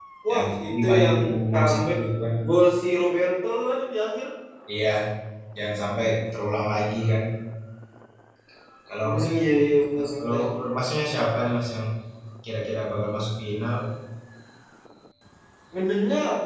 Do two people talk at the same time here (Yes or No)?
Yes